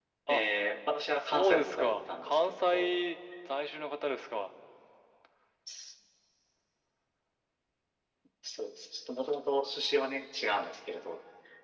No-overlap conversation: No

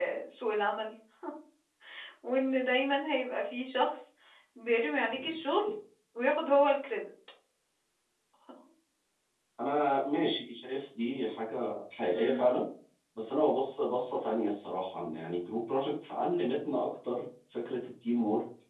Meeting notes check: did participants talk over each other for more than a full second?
No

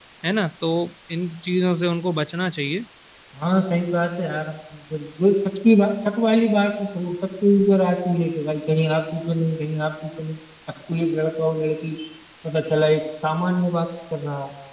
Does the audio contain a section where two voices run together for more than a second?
No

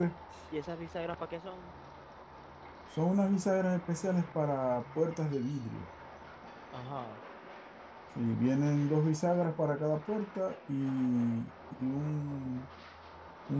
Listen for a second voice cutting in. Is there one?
No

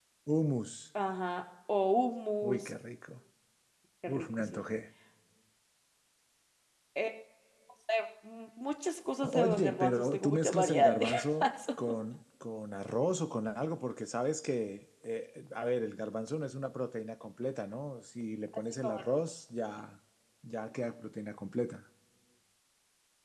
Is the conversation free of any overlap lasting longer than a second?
No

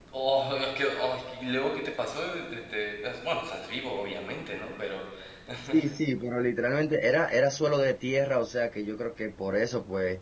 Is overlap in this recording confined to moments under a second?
Yes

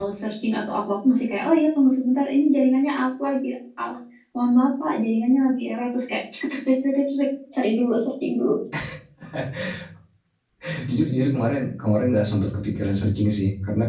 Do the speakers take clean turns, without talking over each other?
Yes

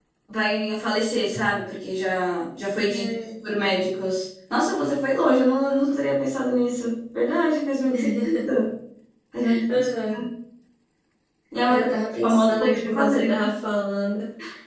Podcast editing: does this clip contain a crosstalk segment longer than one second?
Yes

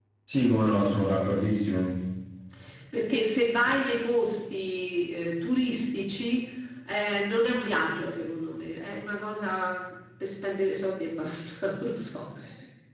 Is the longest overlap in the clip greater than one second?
No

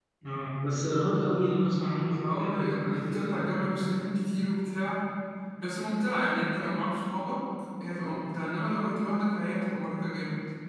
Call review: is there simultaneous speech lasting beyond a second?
Yes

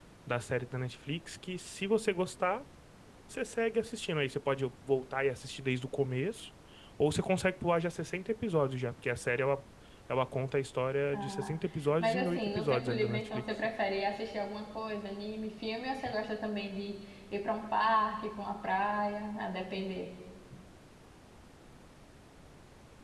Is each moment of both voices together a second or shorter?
No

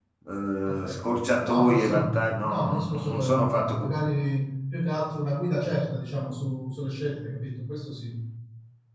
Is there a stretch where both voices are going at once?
Yes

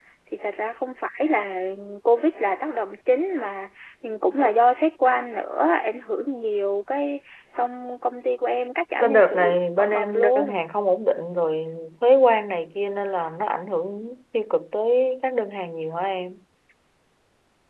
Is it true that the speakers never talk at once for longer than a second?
No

